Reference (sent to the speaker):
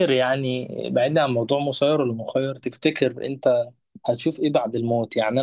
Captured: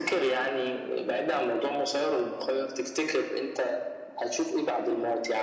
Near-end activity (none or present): none